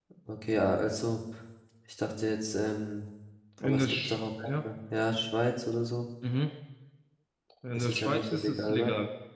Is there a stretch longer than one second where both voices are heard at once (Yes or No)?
Yes